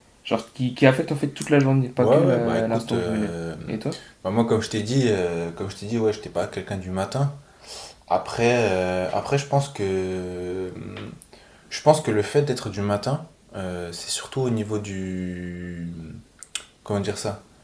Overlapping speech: Yes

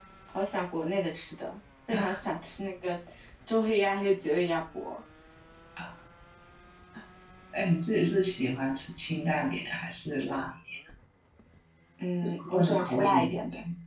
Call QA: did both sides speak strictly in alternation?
No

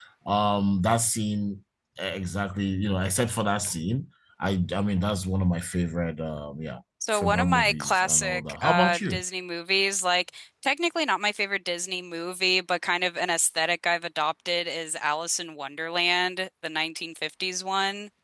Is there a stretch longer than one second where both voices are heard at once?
Yes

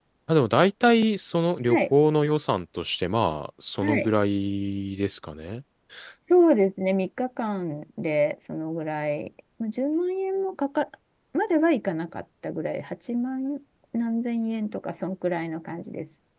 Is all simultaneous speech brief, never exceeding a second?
Yes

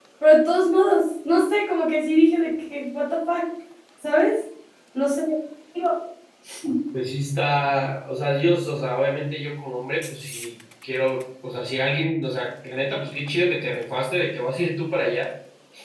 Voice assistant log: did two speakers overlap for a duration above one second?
No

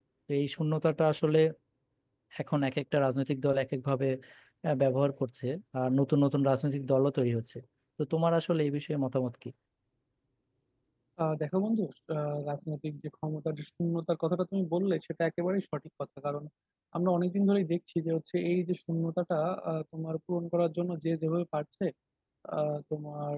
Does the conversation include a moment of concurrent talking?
No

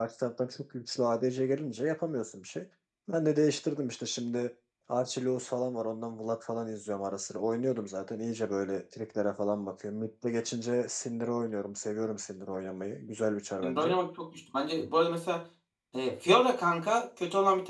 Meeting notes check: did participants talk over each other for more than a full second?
No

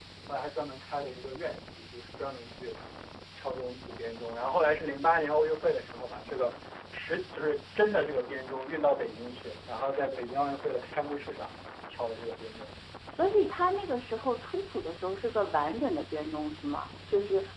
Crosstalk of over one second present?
No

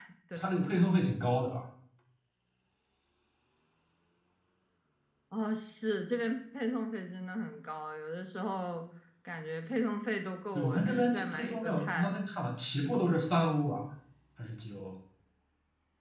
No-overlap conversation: No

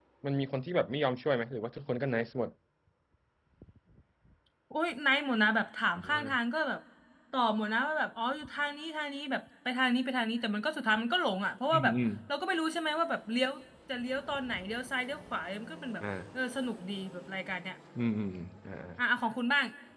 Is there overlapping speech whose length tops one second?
No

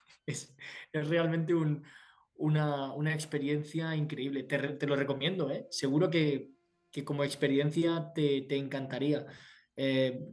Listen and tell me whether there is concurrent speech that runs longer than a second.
No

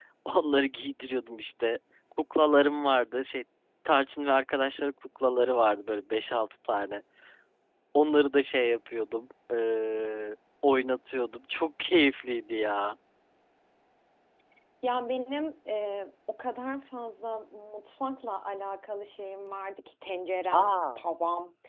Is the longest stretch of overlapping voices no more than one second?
Yes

